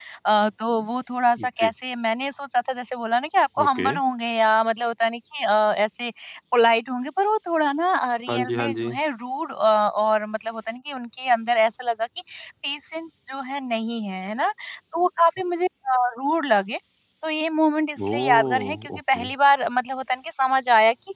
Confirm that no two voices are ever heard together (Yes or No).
No